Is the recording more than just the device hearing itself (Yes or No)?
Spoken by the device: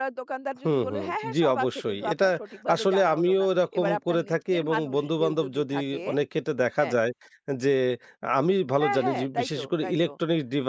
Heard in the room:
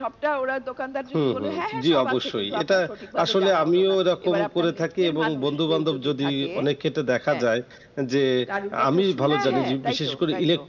Yes